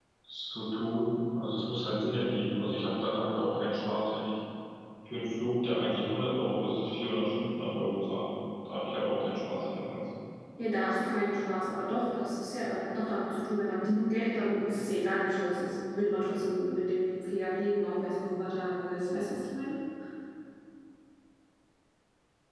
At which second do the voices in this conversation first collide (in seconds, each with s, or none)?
none